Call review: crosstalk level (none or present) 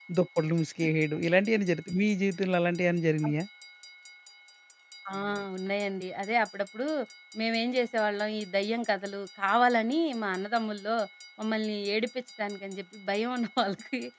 none